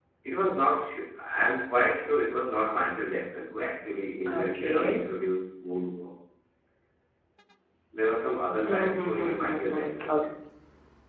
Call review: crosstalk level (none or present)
present